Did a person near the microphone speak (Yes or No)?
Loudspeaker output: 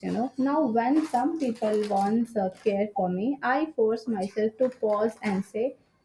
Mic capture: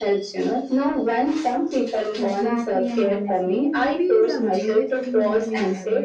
Yes